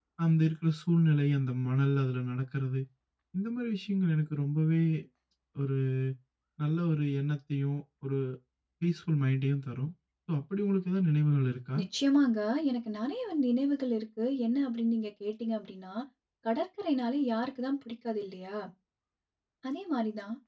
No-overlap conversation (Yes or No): Yes